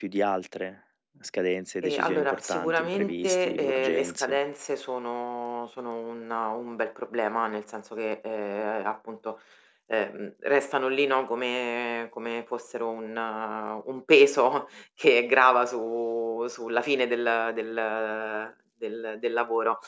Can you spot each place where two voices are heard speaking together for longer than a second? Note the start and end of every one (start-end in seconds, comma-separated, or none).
1.8-4.4